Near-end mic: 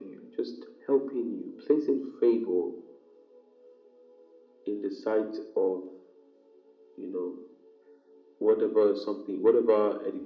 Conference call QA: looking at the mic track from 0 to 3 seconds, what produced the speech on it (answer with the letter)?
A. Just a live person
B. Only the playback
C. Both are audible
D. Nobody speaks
B